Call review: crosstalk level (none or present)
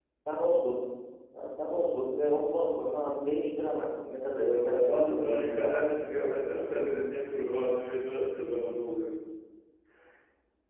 present